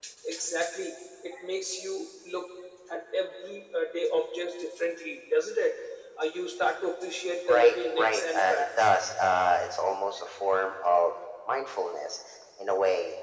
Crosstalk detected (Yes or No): Yes